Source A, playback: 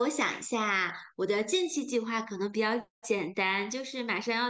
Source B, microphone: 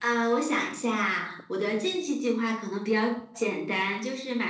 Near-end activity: none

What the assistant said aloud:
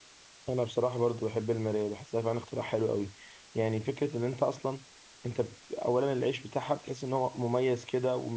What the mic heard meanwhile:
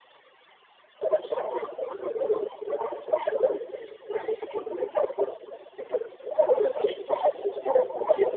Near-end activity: none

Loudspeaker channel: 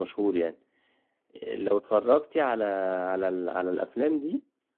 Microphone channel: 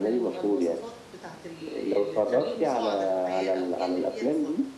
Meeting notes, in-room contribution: present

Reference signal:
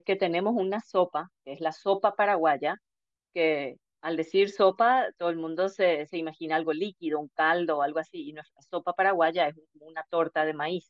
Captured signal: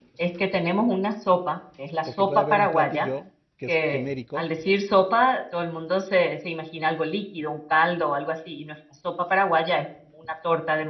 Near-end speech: present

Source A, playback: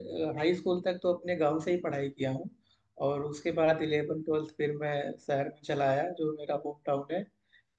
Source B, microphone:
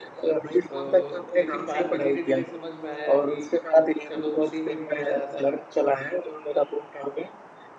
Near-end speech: present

